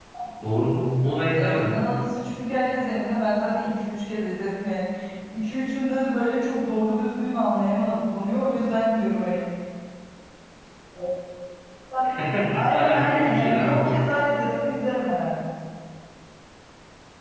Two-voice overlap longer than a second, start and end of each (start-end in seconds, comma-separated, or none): 12.7-14.0